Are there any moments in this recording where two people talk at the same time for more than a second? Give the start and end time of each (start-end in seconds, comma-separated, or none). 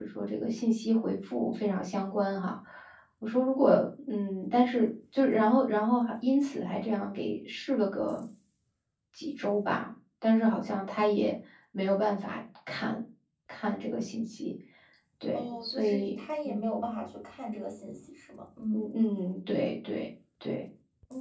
15.3-16.6